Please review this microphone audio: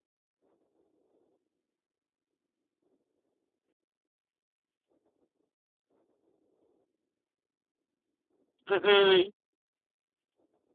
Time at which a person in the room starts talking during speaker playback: 8.7 s

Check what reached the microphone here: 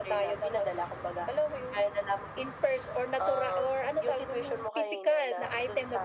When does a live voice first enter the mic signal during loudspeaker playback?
none

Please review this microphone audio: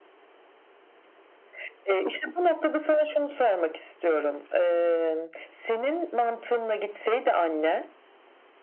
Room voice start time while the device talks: none

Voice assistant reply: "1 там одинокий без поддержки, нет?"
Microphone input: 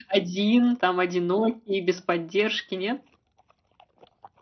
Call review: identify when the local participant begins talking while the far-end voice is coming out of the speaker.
none

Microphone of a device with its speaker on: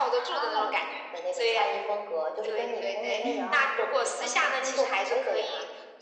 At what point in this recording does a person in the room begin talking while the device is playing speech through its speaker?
3.2 s

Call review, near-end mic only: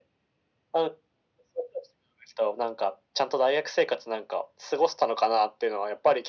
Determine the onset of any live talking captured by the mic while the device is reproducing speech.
none

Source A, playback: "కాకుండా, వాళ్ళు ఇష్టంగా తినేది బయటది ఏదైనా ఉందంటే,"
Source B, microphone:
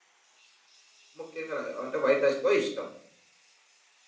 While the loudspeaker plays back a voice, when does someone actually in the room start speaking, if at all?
1.2 s

